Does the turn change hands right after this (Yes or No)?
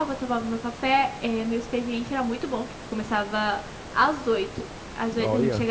No